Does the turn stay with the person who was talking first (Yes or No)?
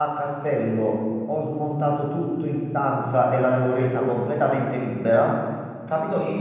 Yes